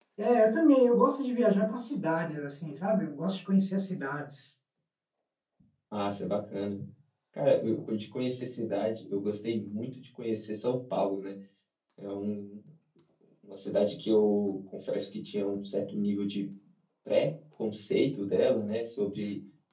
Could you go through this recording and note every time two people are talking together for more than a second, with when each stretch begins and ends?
none

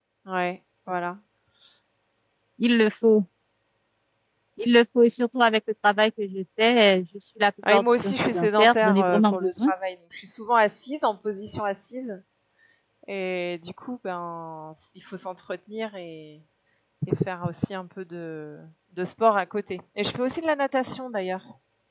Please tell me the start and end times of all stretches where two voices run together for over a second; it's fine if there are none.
7.7-9.7

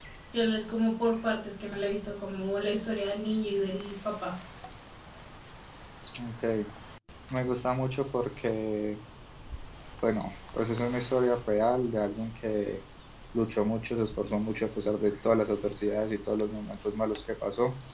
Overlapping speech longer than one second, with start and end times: none

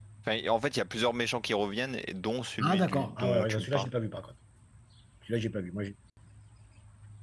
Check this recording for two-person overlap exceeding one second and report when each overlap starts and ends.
2.6-3.9

